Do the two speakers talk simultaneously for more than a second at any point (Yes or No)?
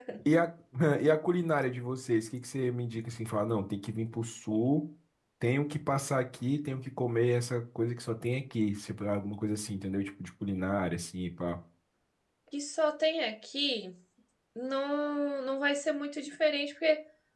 No